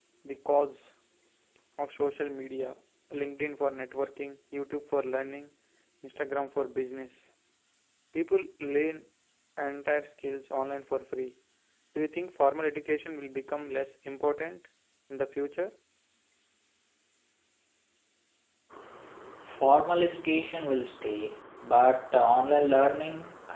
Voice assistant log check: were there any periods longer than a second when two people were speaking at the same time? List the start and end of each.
none

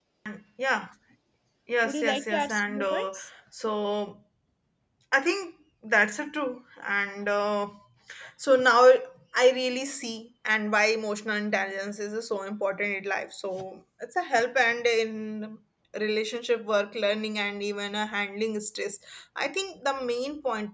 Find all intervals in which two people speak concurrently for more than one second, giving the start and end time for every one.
1.8-3.2

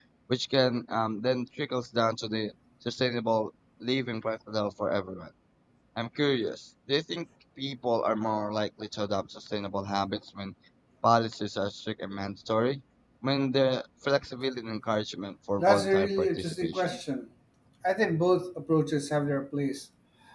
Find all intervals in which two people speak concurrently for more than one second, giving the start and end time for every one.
15.6-17.0

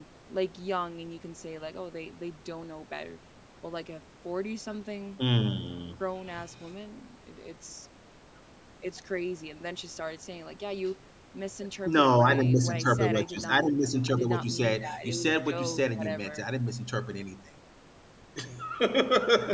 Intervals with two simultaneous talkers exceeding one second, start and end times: 11.8-13.6, 14.1-16.4

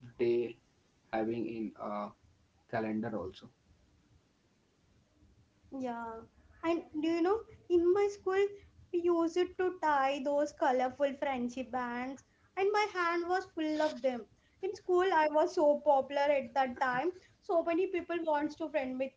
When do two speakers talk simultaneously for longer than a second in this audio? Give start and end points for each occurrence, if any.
none

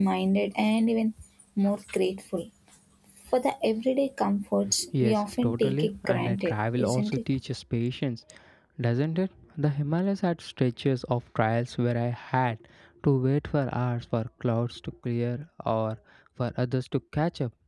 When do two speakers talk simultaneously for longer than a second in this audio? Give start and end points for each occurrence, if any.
5.0-7.2

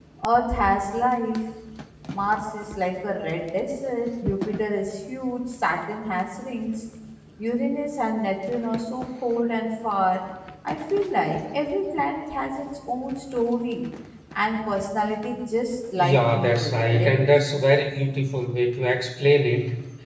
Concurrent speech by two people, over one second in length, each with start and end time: 16.0-17.2

